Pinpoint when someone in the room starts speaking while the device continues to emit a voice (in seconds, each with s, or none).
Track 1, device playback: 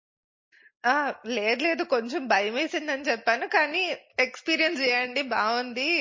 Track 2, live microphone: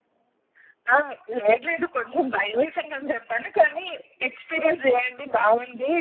none